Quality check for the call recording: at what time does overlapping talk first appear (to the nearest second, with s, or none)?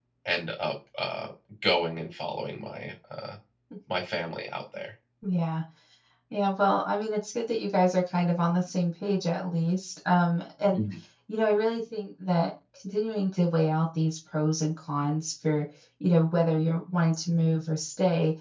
none